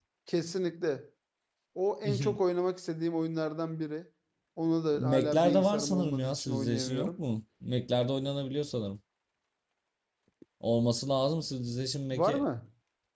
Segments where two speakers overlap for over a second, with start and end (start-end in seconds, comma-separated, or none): 5.0-7.2